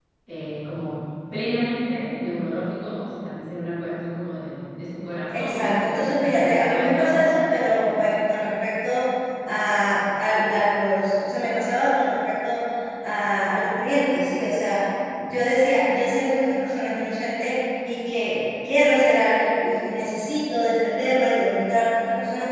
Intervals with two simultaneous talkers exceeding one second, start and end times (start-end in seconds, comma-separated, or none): 5.3-7.6